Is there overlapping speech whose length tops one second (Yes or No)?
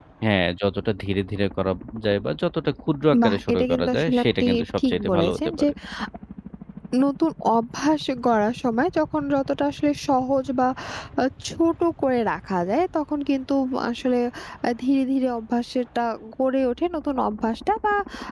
Yes